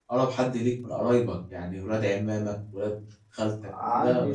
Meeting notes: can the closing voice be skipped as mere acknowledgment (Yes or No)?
No